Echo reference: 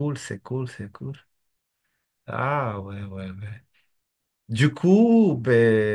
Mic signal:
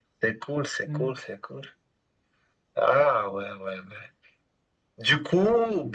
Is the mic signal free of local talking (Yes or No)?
No